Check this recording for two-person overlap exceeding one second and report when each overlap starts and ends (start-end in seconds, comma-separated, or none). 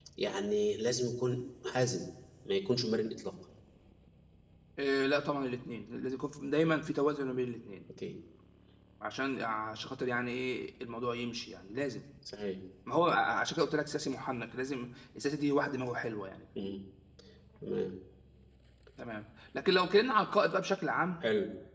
none